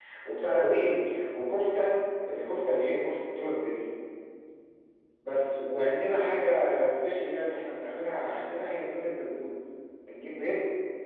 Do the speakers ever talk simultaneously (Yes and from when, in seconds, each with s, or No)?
No